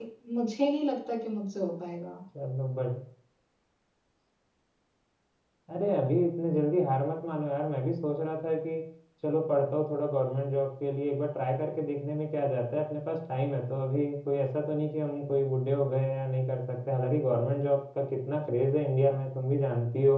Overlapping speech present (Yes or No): No